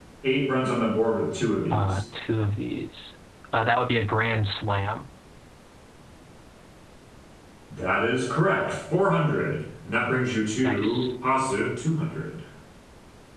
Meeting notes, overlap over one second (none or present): none